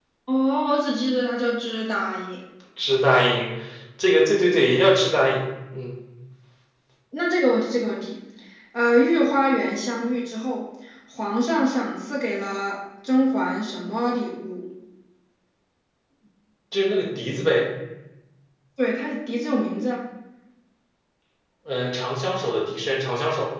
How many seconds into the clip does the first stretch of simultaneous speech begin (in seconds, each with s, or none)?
none